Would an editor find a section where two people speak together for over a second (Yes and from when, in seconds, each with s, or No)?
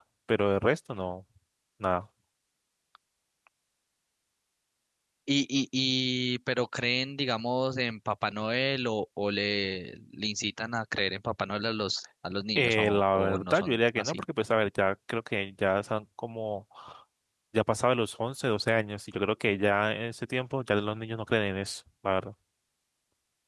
Yes, from 12.6 s